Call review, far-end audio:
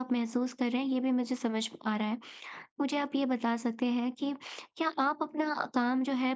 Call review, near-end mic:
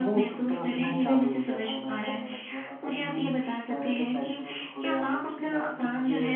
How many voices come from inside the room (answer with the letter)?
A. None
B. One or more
B